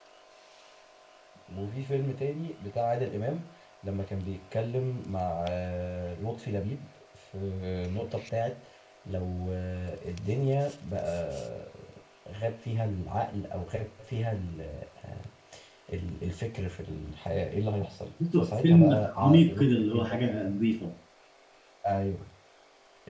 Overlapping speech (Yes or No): Yes